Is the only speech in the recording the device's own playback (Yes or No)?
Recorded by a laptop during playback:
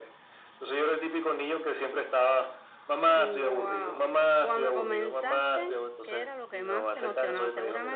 No